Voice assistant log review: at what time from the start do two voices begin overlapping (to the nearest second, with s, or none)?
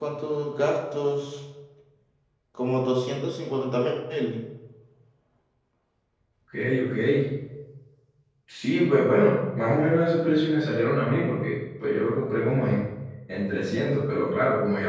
none